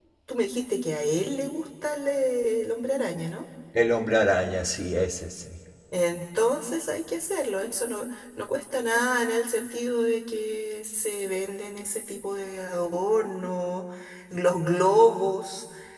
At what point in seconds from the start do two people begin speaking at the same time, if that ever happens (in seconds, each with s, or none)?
none